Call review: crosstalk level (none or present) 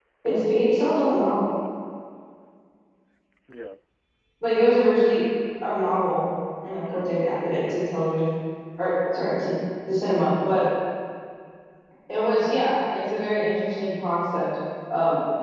present